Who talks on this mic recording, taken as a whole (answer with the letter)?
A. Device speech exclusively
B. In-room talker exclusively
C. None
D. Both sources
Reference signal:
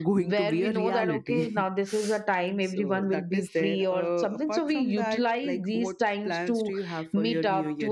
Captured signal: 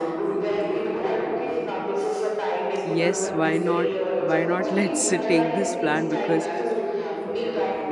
D